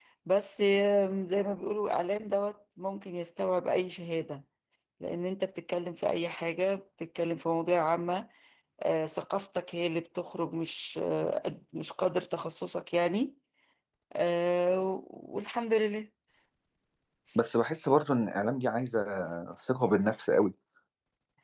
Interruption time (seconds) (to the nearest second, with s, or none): none